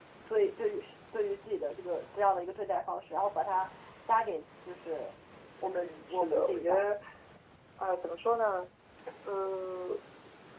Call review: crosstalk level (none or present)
present